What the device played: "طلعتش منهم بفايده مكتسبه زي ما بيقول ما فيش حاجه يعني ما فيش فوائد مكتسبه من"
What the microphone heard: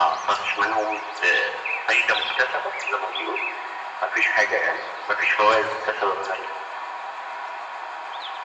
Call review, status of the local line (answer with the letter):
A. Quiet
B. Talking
A